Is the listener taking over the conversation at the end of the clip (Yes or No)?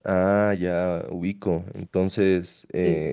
No